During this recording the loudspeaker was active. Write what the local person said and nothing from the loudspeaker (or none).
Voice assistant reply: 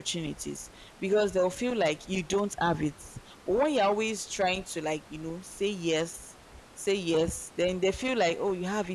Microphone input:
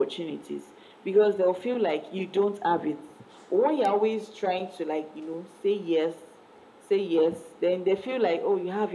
none